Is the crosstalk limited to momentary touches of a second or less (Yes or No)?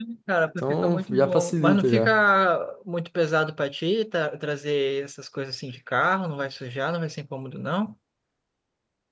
No